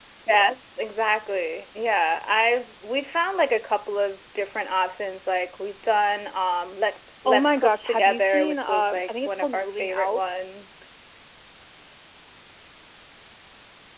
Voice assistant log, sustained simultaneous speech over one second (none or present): present